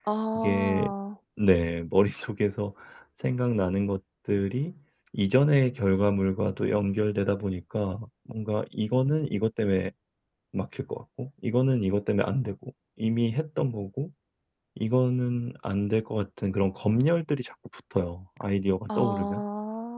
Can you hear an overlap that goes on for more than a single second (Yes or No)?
No